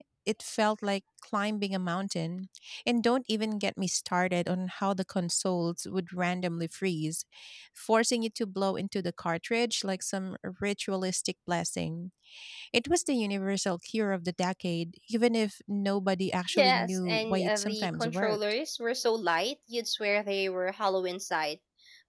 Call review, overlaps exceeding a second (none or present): present